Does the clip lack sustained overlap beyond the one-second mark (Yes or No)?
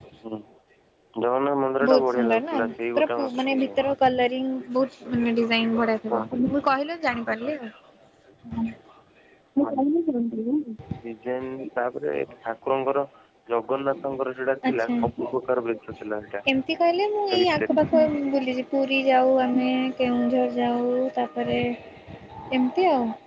No